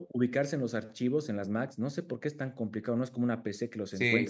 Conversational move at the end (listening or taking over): taking over